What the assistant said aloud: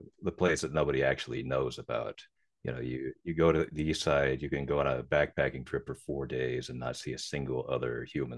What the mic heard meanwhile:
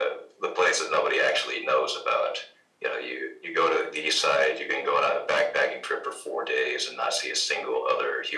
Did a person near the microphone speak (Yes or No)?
No